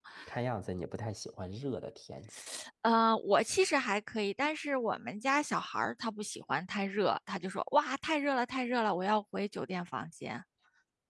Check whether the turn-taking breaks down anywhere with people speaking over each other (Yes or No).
No